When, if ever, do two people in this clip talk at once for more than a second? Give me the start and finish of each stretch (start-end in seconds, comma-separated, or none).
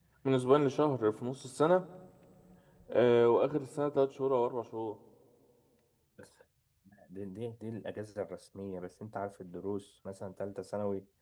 none